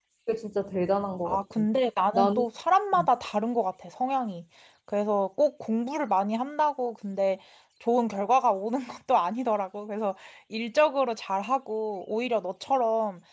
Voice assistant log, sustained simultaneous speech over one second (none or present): none